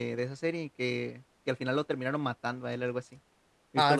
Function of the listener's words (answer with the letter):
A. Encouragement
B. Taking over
B